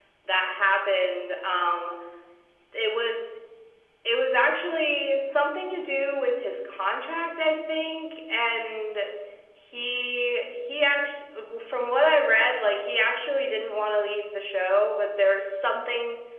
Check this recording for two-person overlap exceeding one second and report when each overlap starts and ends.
none

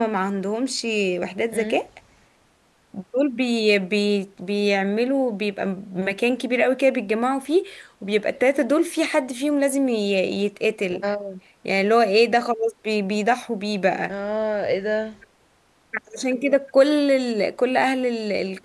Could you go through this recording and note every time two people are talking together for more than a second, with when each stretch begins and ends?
none

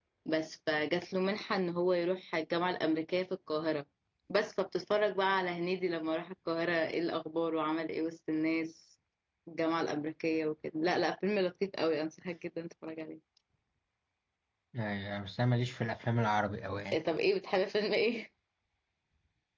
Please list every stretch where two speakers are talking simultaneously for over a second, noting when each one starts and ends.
none

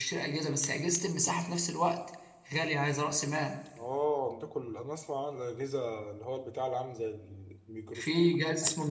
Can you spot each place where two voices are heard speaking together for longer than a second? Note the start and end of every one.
none

